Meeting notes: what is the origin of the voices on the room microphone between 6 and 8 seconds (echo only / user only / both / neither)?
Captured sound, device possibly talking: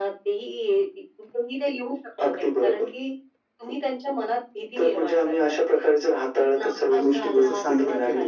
both